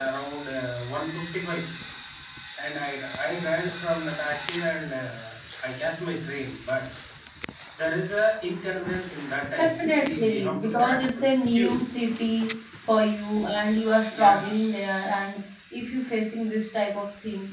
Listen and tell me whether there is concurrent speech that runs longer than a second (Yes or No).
Yes